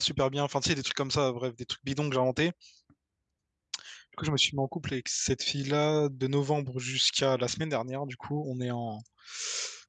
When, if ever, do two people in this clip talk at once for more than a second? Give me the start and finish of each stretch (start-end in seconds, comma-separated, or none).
none